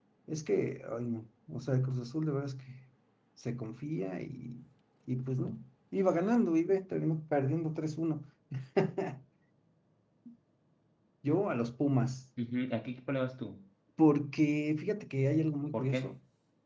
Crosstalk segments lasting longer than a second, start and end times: none

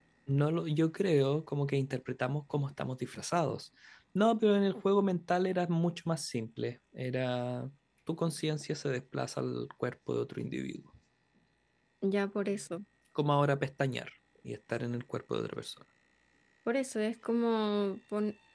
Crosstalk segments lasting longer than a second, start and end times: none

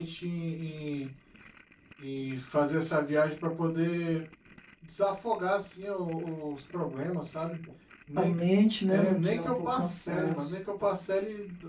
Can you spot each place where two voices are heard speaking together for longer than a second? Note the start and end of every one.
8.9-10.5

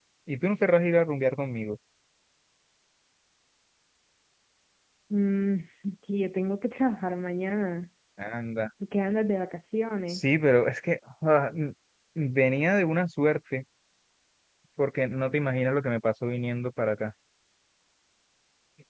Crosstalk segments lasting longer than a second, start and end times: none

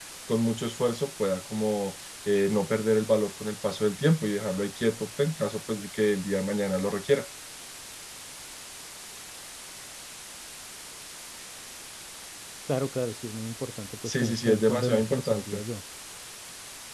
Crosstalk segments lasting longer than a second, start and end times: 14.1-15.6

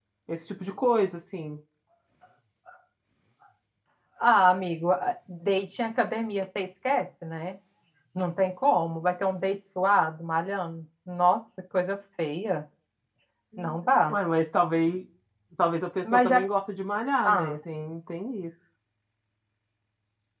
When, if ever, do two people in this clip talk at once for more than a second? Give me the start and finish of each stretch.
none

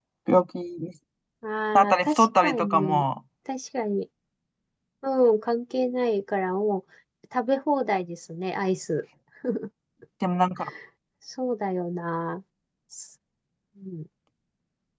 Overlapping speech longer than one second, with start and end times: 1.8-3.0

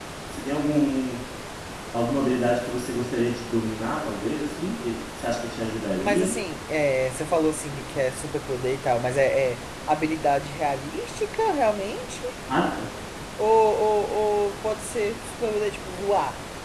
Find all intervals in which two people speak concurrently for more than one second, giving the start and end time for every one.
none

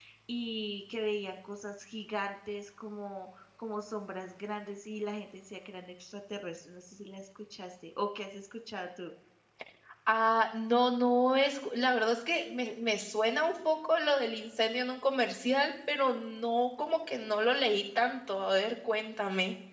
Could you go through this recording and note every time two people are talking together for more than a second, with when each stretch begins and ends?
none

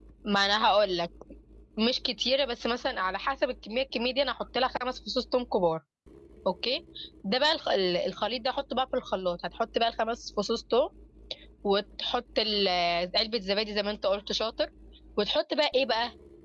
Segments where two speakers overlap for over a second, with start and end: none

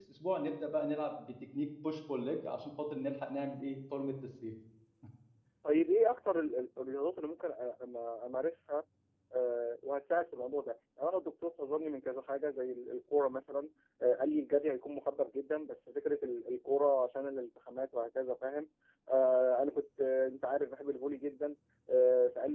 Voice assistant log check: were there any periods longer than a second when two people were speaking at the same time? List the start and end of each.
none

